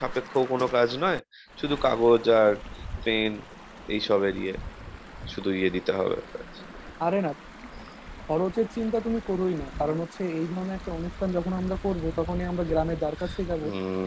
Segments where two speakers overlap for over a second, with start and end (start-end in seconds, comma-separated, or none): none